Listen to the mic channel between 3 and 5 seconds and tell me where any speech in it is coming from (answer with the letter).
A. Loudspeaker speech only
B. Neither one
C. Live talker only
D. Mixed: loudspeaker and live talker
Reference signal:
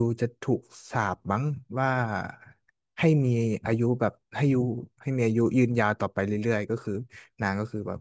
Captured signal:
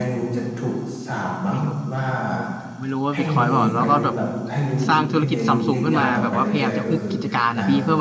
D